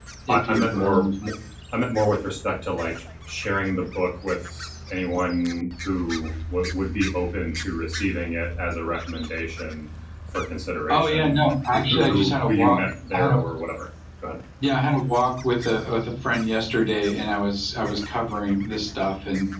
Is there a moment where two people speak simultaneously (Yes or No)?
Yes